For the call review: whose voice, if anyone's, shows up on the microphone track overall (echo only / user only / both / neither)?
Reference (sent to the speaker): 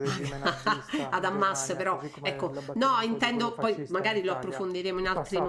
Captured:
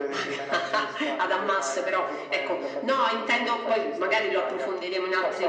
echo only